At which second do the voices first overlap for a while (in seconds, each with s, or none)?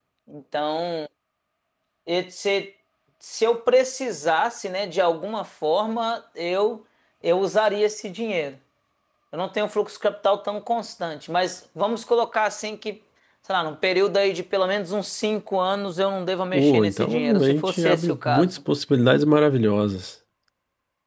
16.5 s